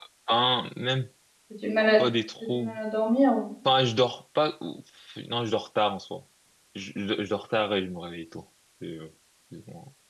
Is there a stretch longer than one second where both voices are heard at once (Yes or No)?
No